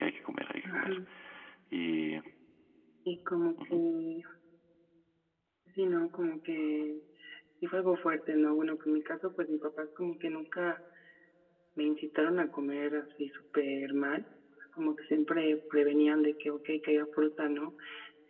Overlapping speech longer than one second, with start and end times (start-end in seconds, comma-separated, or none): none